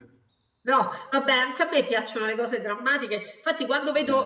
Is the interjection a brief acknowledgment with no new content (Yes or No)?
Yes